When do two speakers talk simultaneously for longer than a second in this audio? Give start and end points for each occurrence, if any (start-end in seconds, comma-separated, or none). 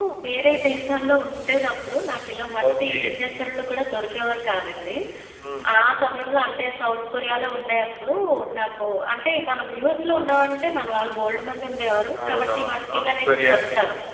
12.2-13.6